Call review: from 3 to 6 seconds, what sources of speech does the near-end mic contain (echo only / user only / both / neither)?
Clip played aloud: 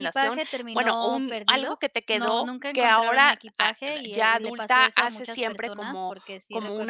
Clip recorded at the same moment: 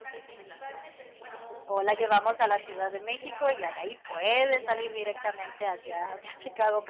both